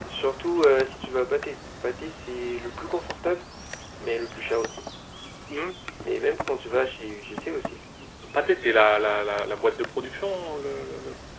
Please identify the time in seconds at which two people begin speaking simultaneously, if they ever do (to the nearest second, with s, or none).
none